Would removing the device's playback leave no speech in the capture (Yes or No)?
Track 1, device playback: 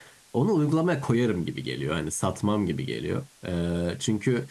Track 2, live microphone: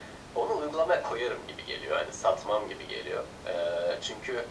Yes